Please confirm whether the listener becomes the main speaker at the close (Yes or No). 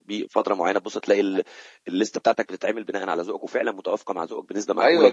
Yes